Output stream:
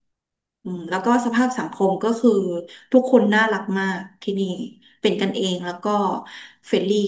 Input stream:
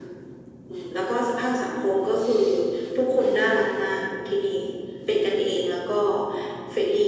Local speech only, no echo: none

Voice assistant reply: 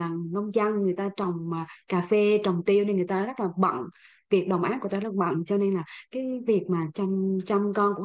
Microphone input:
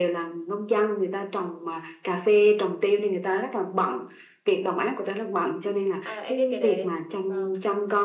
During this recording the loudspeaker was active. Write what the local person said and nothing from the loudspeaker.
À em biết cái đấy. Vâng.

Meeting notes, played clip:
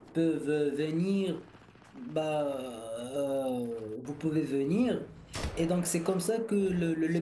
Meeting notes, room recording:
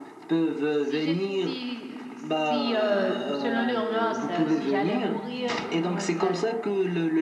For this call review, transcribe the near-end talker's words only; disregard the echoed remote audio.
Si j'ai, si, euh, si euh, selon l'urgence, euh, si j'allais mourir ou du moins ça,

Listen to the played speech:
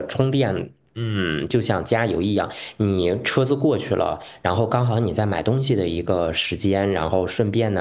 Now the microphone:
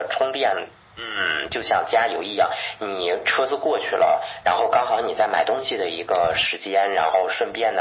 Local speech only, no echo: none

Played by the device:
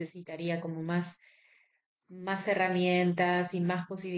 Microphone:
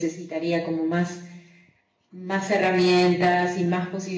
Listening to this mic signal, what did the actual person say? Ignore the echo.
none

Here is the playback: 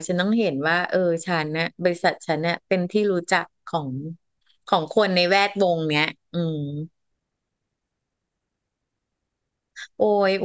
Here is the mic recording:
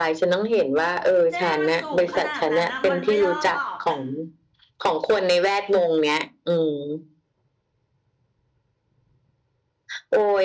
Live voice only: เจ๊มันสูงขนาดนั้นนะมันไม่รอดหรอก

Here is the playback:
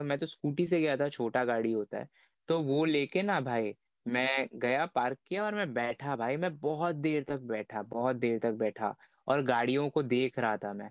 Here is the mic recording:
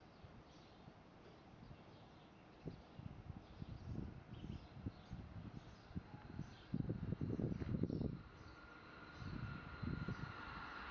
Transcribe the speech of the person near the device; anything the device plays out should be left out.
none

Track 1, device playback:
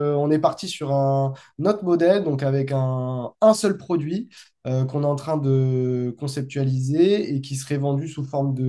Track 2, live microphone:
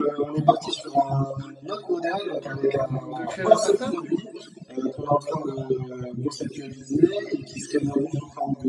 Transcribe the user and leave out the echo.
Hum, de créer la startup?

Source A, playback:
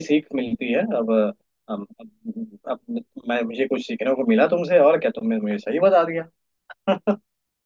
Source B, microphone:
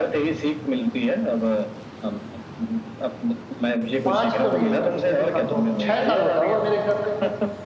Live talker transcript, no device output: पाँच तो नहीं होता है ये तो कंफर्म छह साल होता होगा मेरे हिसाब से

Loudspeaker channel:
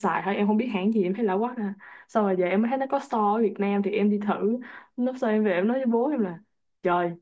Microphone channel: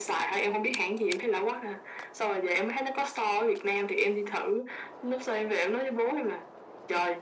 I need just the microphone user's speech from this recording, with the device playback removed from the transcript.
none

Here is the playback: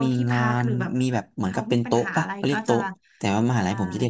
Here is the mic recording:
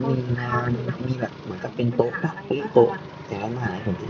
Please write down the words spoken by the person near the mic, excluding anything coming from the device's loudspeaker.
none

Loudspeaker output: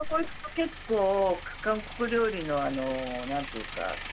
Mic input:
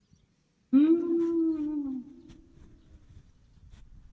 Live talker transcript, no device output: うーん。

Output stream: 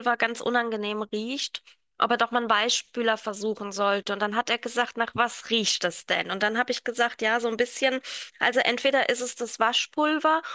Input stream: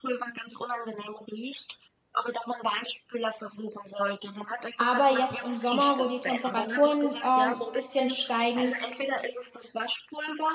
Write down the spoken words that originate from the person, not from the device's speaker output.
Aber jetzt im Sommer, wo die Temperaturen ähm, ein bisschen steigen,

